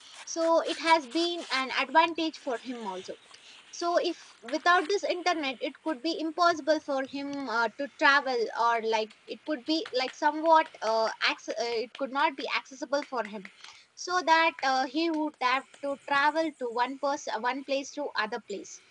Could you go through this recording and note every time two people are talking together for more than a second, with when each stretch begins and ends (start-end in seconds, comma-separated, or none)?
none